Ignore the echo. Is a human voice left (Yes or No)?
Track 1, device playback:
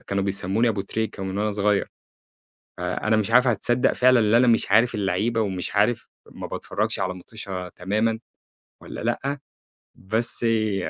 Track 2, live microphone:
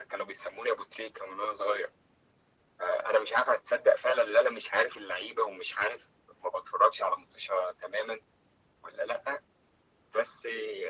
No